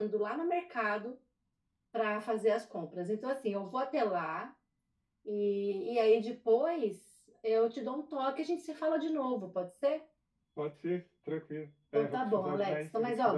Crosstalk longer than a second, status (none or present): present